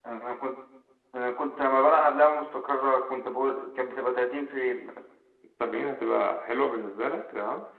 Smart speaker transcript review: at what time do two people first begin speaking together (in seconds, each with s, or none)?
none